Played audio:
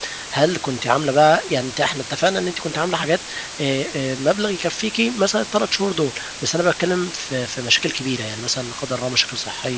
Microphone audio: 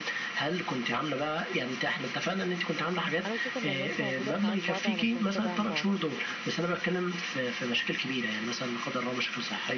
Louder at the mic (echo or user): echo